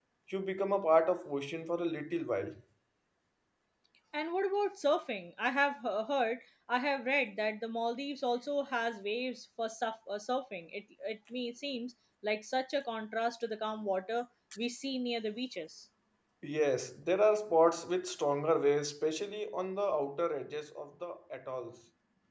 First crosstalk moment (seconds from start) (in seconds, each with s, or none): none